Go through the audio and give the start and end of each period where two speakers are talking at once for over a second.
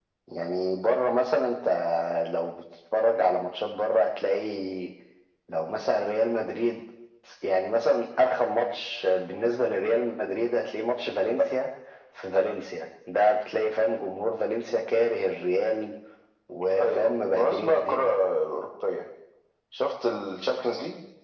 16.8-18.0

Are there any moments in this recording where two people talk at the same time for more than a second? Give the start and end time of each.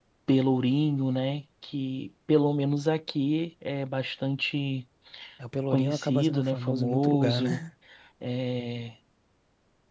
5.7-7.6

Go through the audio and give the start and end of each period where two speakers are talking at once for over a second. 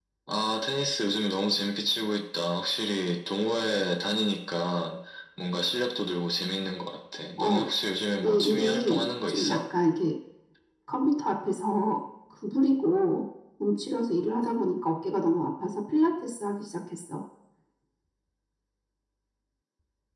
8.2-9.6

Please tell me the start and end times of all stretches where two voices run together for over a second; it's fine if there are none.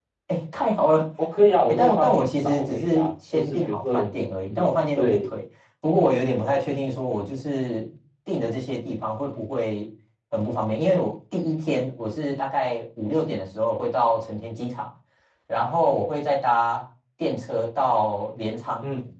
1.7-5.2

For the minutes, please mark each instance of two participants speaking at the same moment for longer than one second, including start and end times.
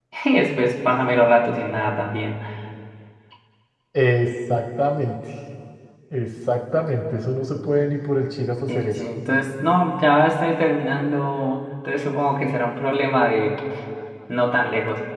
none

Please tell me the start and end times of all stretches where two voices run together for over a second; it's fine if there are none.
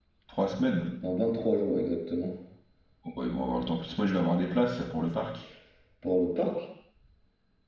none

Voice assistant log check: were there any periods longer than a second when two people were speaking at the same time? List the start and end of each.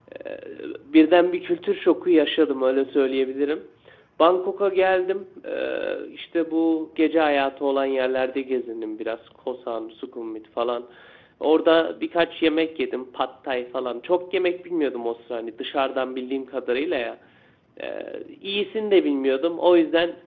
none

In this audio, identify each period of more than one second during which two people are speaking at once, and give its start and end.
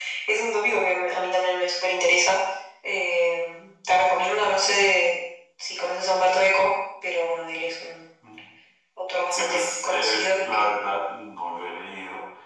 9.4-10.7

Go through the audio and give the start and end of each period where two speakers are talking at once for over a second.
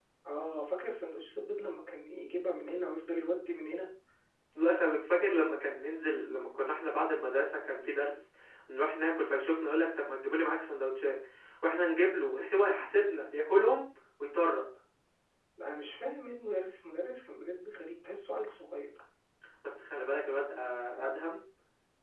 none

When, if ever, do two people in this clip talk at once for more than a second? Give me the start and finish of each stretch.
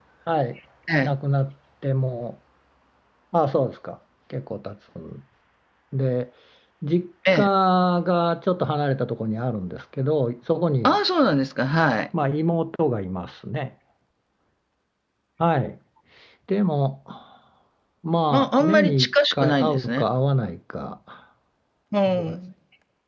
18.3-20.1

